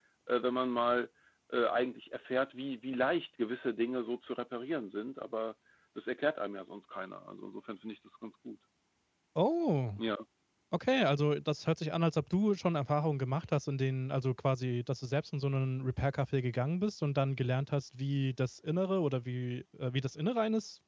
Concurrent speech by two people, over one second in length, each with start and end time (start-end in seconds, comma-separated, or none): none